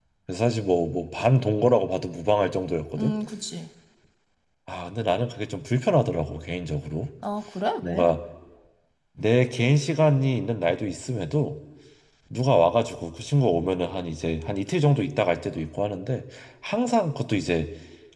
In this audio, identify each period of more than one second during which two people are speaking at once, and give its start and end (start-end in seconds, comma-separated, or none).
none